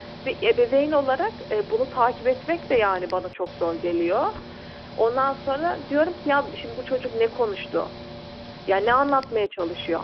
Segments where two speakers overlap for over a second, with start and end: none

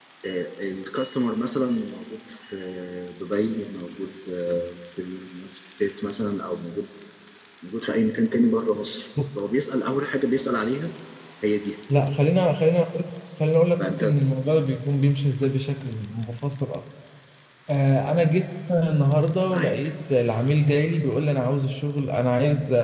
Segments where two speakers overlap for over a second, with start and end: none

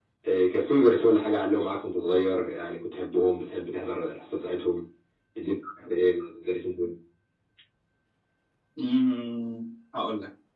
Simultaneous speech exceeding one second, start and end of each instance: none

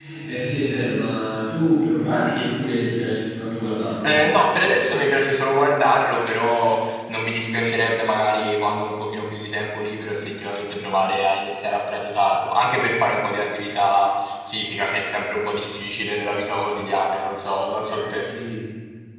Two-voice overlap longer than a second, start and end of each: none

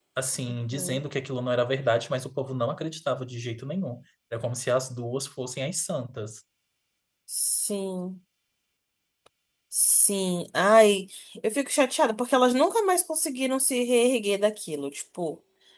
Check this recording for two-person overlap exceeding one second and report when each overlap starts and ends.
none

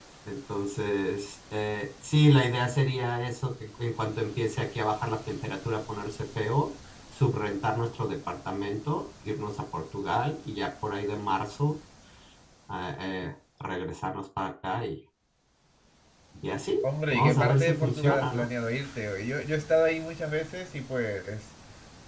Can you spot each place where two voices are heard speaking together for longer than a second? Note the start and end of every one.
16.8-18.5

